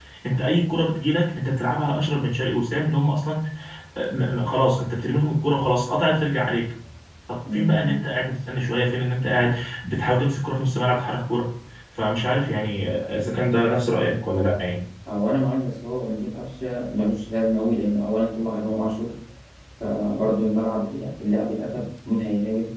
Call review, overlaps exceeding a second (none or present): none